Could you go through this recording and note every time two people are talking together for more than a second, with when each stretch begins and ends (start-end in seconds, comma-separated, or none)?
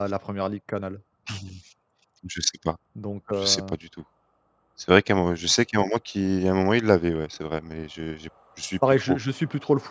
none